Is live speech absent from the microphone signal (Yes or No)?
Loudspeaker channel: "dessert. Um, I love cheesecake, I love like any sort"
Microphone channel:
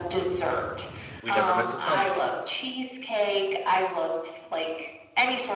No